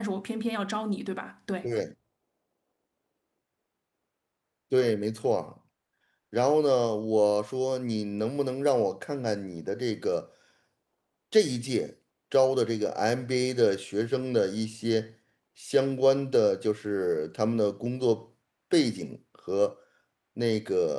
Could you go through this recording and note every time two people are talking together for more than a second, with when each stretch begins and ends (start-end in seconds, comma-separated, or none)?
none